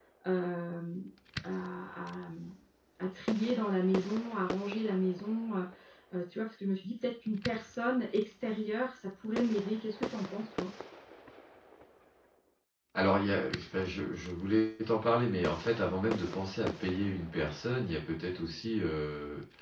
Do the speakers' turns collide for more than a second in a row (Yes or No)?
No